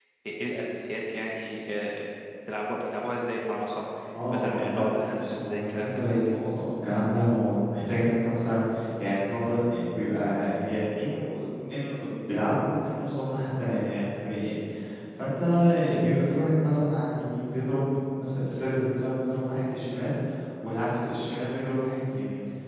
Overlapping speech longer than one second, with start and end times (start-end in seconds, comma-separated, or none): 4.3-6.4